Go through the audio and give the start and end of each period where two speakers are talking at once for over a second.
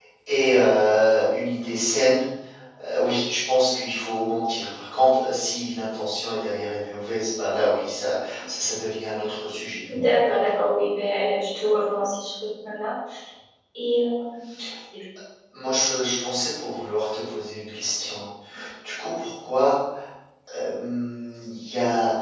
none

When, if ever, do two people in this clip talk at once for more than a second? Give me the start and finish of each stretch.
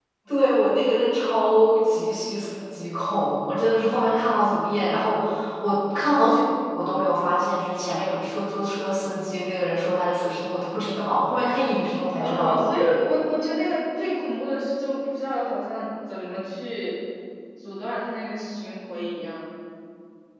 none

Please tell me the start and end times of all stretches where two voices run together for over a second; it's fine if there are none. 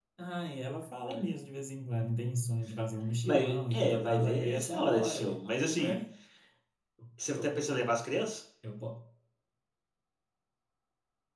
3.2-5.2

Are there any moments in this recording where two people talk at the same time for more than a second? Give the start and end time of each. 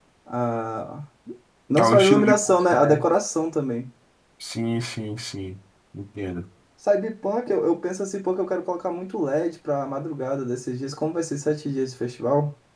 1.8-3.0

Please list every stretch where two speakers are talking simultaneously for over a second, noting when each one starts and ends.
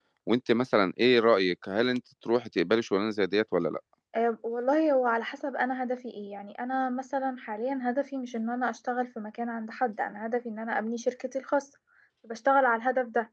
none

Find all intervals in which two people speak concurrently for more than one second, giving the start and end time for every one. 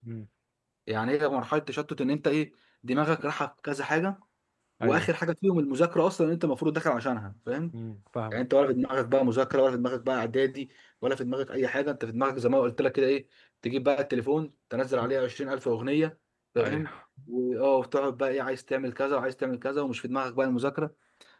none

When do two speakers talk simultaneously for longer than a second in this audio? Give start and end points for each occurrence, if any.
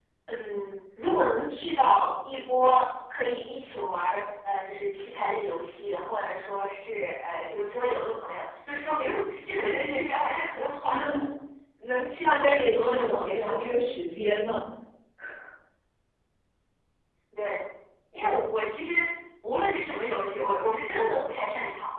12.2-13.6

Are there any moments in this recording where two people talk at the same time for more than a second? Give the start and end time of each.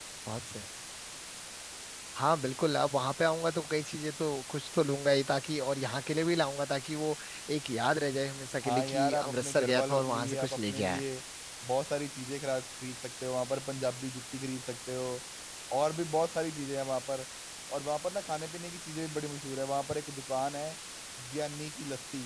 8.6-11.0

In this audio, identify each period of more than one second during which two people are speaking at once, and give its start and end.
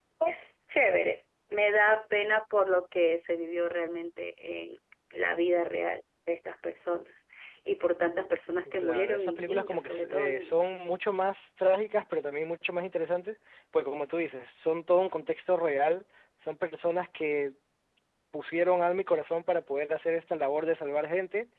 8.8-10.5

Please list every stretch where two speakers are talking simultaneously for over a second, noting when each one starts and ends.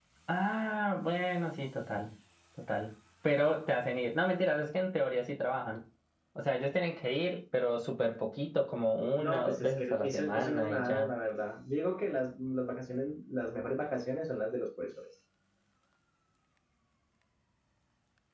9.2-11.1

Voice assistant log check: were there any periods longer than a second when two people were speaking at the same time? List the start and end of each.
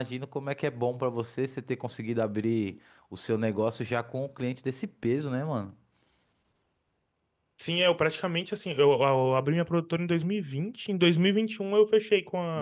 none

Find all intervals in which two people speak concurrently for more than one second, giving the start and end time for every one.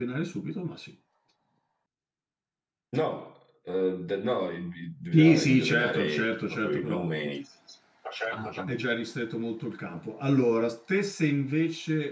5.1-7.1

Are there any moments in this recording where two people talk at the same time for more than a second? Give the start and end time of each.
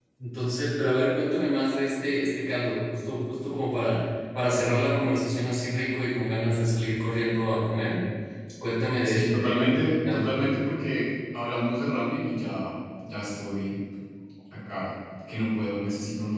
9.0-10.3

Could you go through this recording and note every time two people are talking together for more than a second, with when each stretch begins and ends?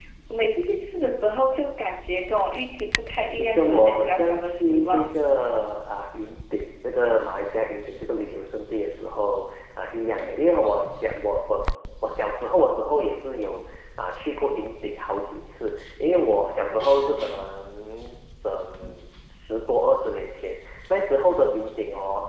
3.4-5.2

